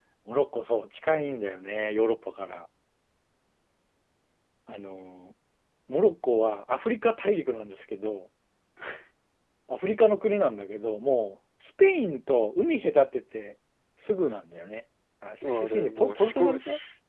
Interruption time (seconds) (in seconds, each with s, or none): 15.4 s